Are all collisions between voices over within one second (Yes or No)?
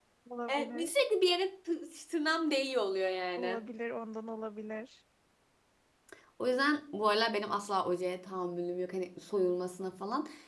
Yes